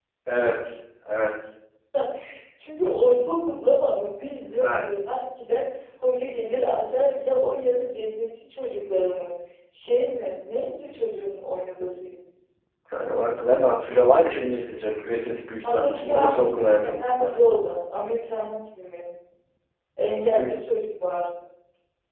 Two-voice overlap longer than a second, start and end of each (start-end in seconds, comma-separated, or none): 15.6-17.4